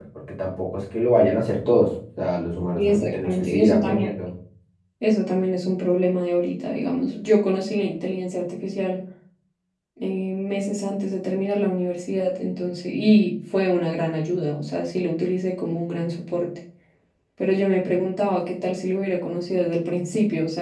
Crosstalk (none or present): present